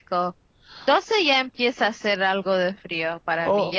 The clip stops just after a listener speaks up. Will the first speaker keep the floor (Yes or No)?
No